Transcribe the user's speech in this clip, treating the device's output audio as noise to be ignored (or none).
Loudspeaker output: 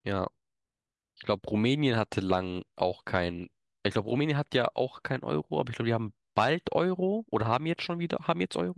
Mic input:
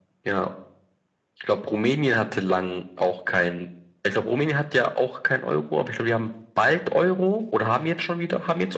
none